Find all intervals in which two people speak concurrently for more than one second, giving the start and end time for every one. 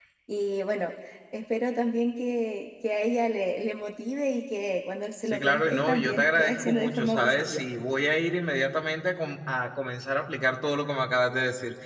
5.3-7.6

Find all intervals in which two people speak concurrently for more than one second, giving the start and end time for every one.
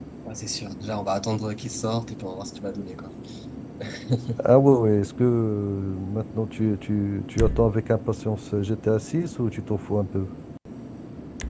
none

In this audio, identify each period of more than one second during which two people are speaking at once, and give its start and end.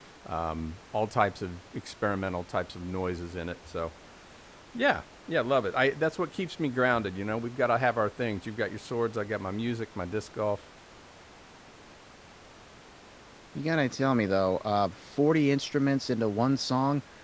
none

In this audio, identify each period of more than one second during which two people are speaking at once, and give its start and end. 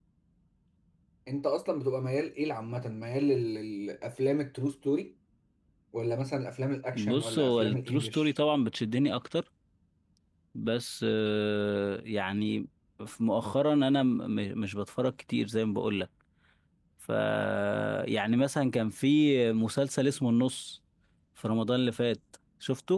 6.9-8.3

